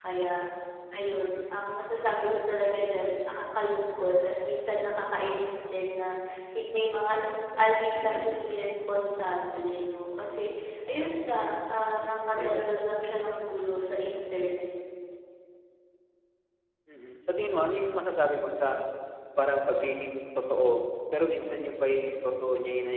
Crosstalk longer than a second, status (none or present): none